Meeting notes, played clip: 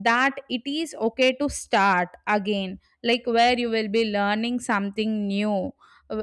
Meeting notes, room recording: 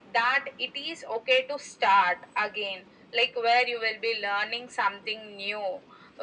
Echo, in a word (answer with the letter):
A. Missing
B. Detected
B